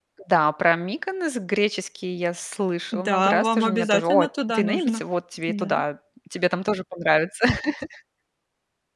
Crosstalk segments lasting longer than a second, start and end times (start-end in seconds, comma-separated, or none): 2.9-5.0